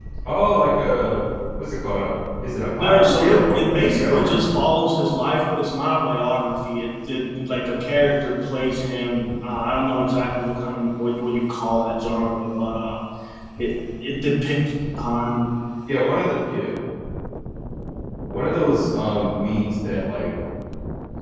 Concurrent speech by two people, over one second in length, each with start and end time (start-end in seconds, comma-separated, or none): 2.7-4.4